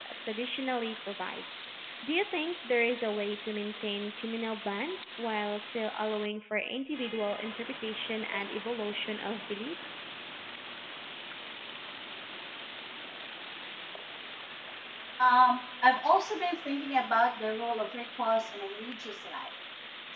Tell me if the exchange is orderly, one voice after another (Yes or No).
Yes